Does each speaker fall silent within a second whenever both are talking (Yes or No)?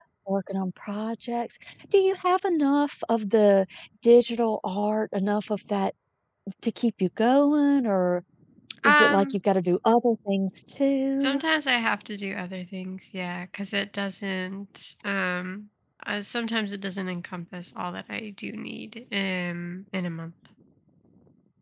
Yes